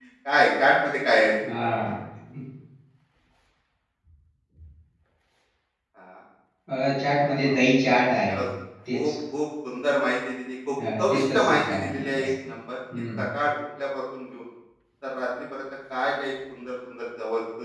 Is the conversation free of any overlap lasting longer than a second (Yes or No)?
No